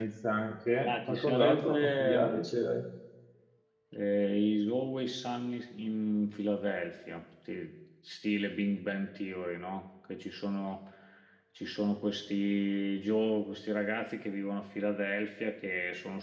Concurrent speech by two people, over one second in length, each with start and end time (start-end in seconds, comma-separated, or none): 0.8-2.4